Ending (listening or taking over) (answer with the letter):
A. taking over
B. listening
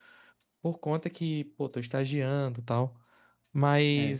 B